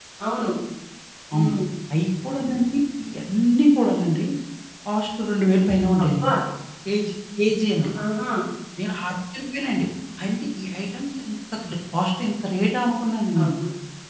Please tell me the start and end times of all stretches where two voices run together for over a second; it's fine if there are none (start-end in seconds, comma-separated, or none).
none